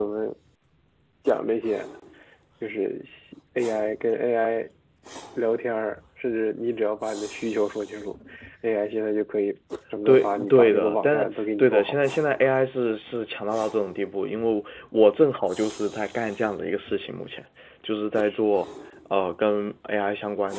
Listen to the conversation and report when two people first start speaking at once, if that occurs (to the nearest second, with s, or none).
10 s